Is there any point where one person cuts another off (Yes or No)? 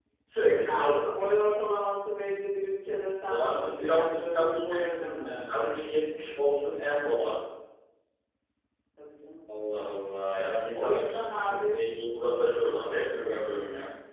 Yes